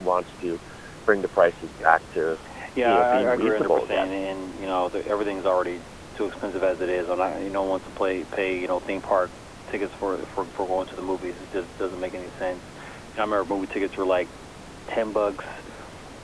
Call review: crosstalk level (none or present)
present